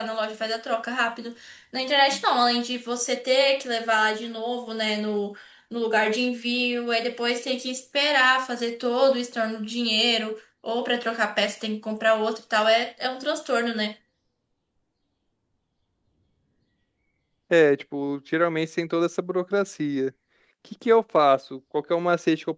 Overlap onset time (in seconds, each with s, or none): none